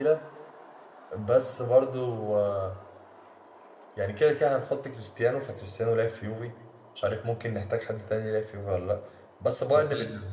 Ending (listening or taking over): listening